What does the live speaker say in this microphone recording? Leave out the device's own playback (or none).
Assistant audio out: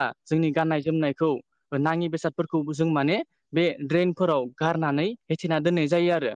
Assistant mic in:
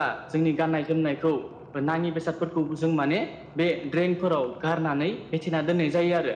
none